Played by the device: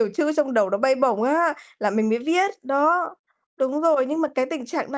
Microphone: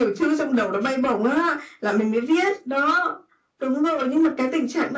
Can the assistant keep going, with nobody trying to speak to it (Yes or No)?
Yes